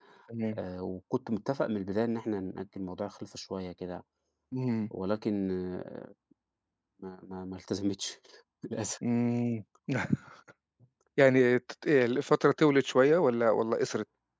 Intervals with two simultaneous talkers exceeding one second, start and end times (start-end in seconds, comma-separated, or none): none